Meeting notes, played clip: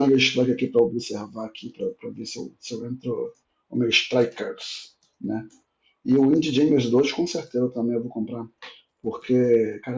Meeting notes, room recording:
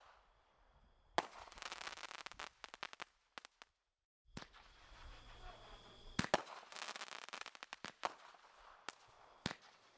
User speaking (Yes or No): No